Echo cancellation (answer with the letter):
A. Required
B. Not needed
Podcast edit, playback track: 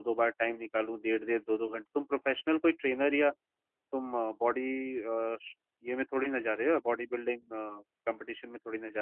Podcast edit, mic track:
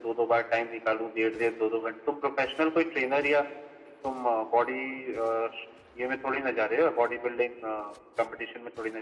A